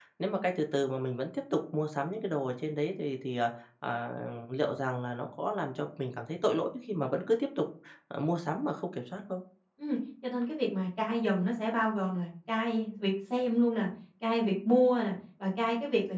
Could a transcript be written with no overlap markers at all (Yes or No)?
Yes